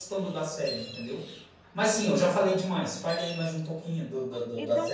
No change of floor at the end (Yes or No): No